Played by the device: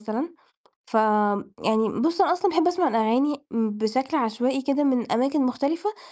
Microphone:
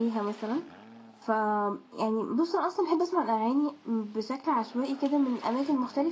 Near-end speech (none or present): none